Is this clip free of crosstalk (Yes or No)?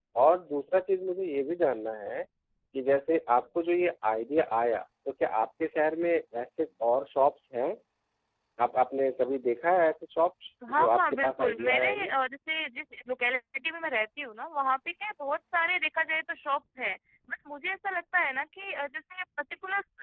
No